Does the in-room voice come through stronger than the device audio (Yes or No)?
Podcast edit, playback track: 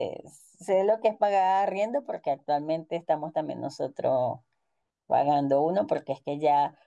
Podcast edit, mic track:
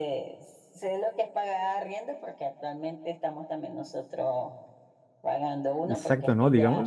Yes